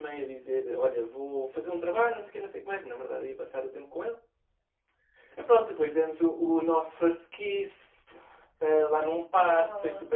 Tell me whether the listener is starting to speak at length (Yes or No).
No